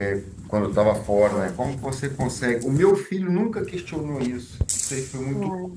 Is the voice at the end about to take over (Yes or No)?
No